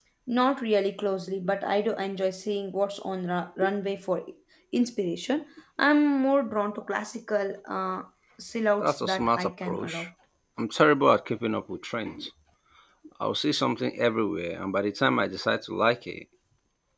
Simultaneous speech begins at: 8.8 s

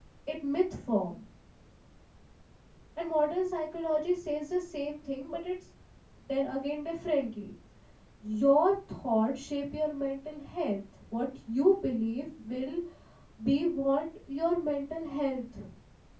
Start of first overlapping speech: none

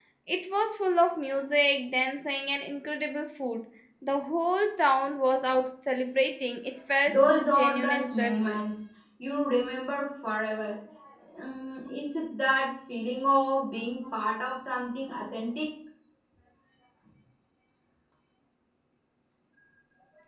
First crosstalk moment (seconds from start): 7.1 s

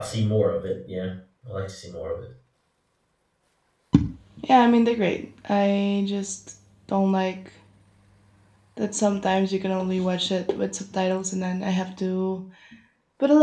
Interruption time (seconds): none

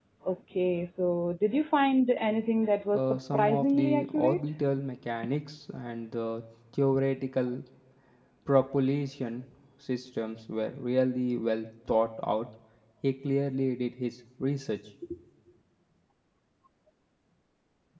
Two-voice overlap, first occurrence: 2.9 s

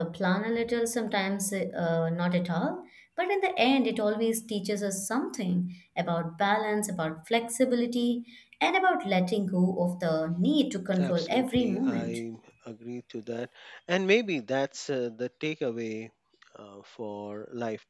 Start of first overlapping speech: 10.9 s

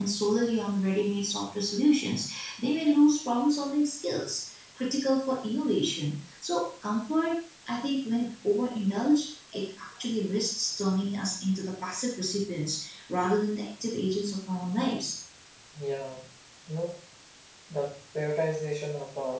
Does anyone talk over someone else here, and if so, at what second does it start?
none

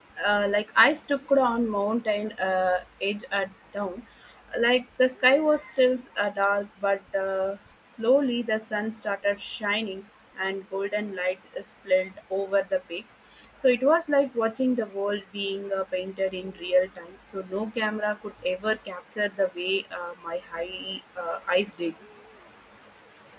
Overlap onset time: none

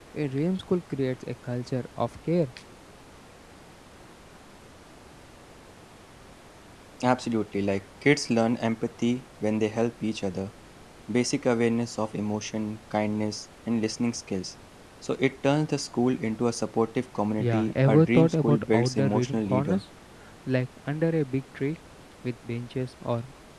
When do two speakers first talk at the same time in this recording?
17.4 s

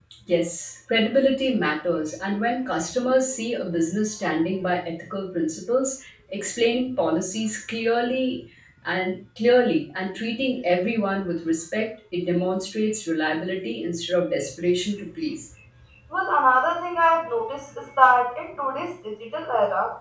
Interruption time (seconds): none

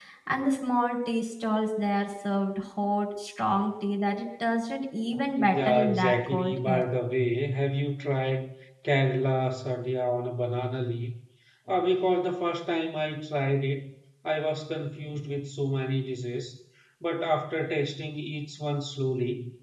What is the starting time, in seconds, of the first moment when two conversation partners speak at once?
5.1 s

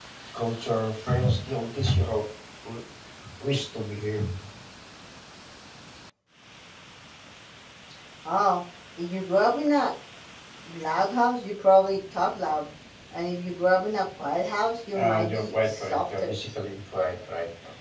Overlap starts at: 14.9 s

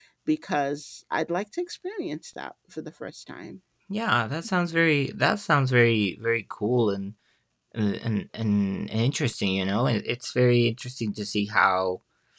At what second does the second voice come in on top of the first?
none

